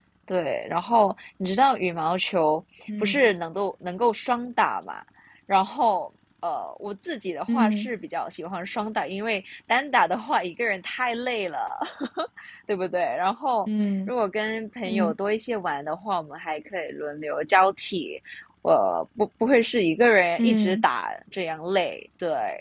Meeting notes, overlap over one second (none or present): none